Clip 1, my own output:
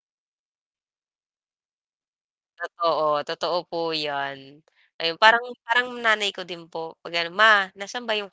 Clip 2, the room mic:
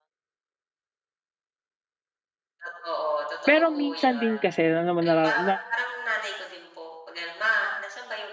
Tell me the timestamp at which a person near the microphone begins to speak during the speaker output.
3.5 s

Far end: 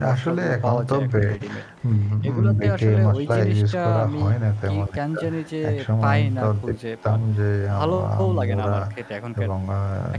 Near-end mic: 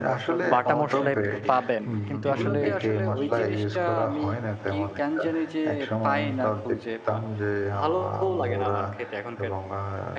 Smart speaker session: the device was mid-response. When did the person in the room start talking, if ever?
0.5 s

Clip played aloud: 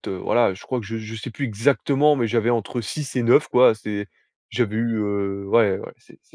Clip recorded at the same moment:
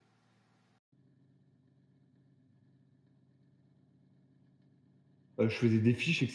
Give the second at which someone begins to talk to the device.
5.4 s

